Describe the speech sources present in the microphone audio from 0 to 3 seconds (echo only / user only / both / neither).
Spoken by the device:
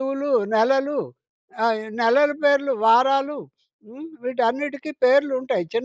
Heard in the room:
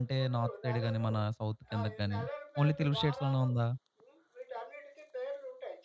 both